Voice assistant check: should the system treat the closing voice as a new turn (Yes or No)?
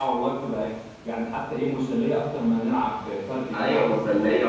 Yes